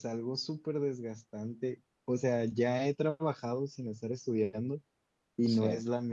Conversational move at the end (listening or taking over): listening